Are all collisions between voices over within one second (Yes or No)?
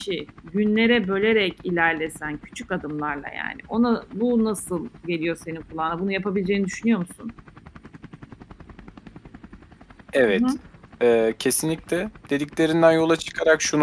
Yes